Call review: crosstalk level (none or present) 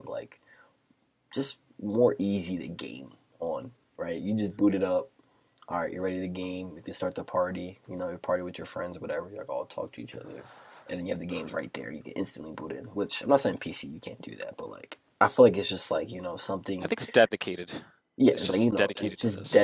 present